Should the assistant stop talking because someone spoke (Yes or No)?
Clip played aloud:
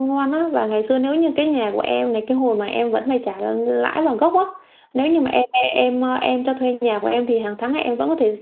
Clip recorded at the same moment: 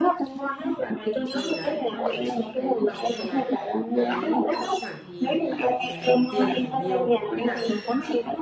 Yes